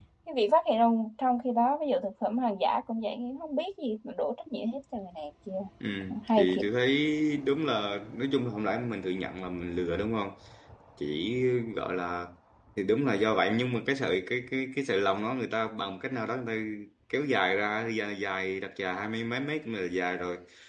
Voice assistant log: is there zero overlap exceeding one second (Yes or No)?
Yes